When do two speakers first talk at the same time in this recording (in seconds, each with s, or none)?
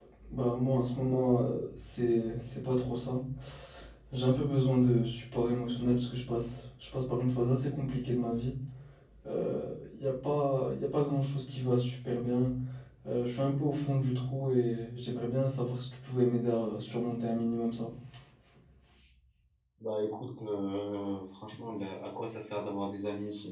none